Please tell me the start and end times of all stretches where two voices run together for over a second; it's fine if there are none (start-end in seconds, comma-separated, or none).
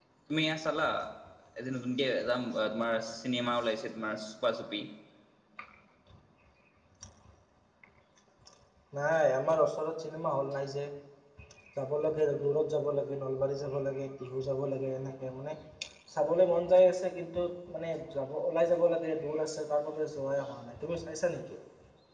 none